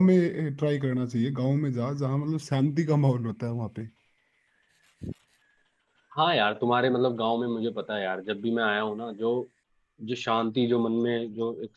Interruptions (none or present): none